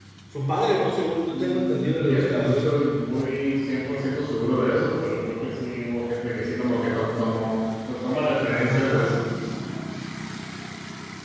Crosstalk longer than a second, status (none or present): present